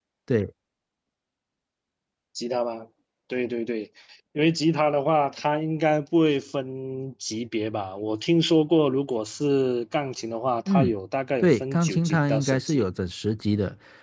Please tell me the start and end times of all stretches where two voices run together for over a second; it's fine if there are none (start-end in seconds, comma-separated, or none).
11.4-12.8